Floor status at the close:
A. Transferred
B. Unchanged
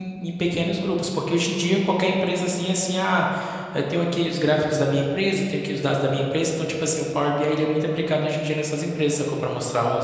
A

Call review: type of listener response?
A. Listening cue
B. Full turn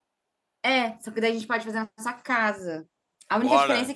A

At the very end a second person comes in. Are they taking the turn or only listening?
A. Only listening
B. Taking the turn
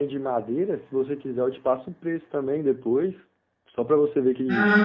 B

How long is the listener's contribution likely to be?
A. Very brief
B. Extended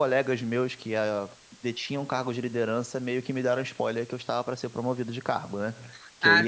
A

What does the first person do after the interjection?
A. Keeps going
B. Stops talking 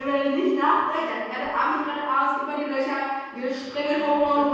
A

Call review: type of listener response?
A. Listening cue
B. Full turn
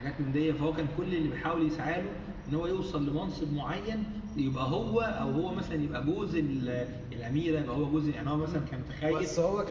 B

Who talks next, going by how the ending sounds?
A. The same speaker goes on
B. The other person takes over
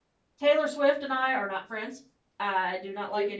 A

